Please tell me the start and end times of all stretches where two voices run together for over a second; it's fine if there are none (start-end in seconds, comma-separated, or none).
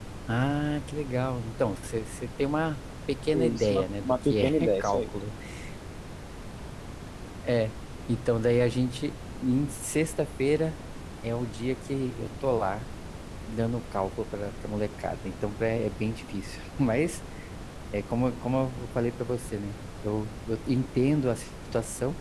3.3-5.1